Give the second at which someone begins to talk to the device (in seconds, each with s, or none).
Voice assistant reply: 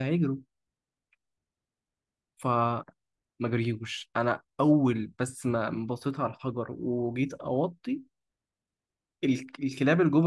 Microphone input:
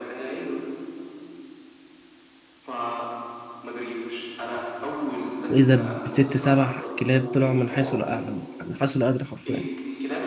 5.5 s